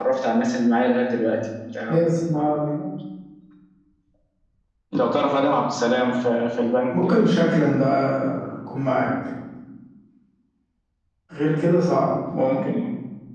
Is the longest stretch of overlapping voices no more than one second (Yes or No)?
Yes